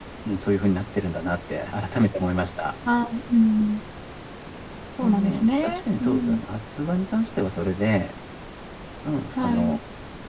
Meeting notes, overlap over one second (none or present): present